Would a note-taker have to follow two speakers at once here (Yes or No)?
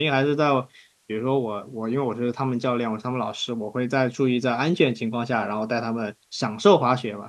No